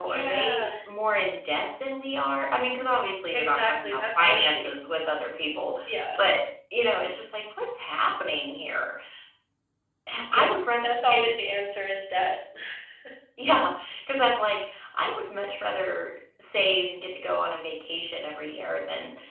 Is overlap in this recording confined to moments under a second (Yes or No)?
No